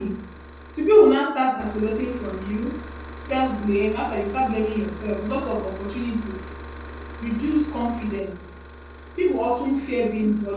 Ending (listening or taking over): listening